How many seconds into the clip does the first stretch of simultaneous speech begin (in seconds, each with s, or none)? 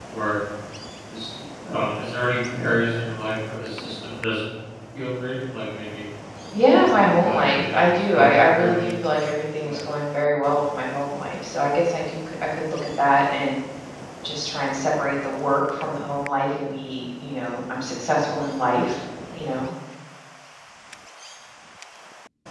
6.8 s